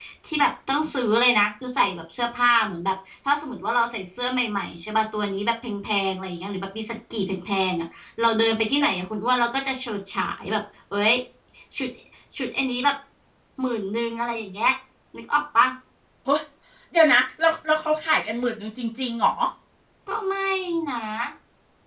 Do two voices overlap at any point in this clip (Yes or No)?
No